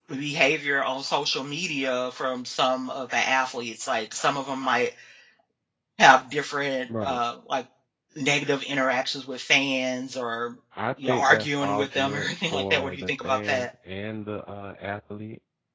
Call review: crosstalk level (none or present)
present